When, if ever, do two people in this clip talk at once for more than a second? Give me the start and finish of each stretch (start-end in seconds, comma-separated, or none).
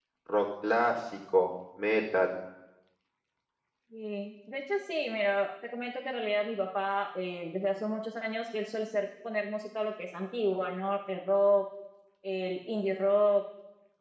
none